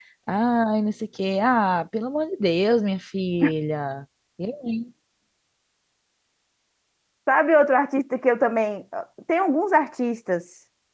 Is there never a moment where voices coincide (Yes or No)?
Yes